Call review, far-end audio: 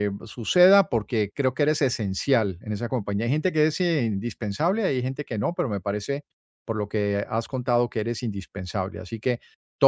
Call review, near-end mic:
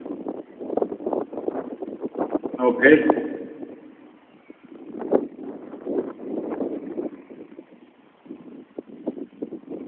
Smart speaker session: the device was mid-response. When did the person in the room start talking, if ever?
2.6 s

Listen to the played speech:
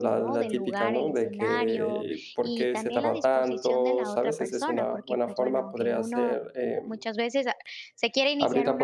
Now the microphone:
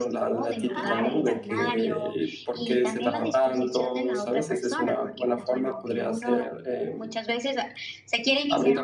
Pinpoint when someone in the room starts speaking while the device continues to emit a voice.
0.7 s

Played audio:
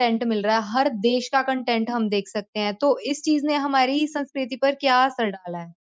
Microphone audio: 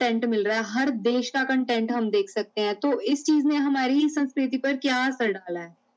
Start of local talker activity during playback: none

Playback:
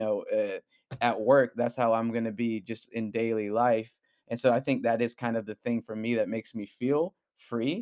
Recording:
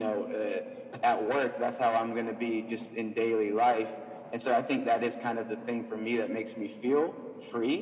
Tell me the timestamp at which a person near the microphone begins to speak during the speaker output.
none

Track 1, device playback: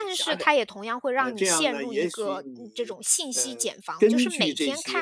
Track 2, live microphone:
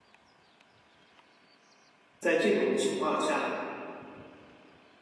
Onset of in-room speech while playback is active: 2.2 s

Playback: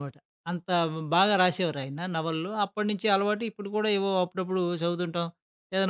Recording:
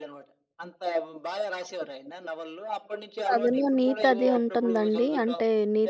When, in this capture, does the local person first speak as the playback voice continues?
3.3 s

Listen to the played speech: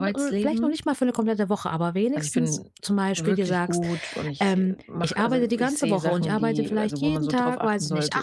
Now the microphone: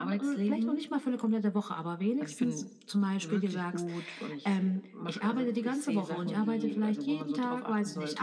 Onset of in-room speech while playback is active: none

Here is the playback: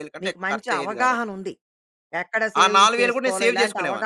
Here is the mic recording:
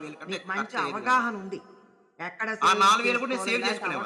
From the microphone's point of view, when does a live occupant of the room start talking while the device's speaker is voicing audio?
none

